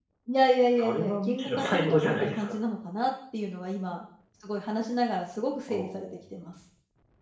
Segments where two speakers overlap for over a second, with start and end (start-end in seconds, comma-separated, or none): 0.8-2.6